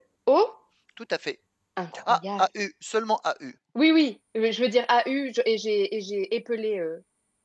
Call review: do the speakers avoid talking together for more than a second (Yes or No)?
Yes